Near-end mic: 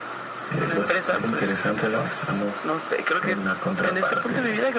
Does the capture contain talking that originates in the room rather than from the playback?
No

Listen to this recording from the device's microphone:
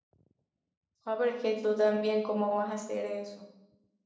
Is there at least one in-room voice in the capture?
Yes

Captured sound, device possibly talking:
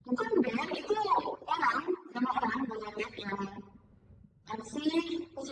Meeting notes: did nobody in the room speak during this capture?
Yes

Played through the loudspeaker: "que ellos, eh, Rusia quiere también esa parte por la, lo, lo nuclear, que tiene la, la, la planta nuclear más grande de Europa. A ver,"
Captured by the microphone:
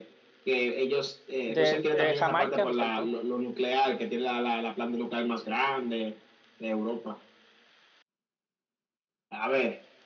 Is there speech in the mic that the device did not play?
Yes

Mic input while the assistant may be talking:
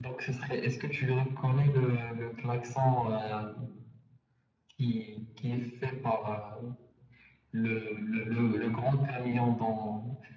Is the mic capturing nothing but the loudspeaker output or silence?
Yes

